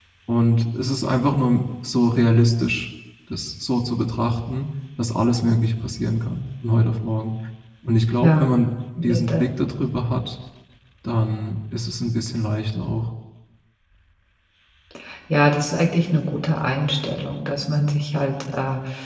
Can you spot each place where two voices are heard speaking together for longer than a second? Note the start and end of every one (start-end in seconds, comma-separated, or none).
none